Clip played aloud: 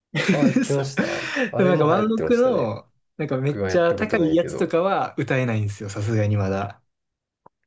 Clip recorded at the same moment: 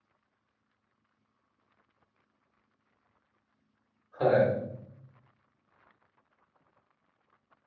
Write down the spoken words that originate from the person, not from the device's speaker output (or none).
はい。